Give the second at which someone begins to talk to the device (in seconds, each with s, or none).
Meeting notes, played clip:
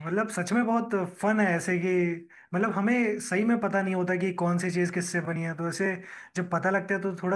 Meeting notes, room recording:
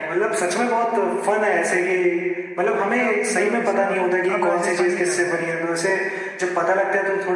2.7 s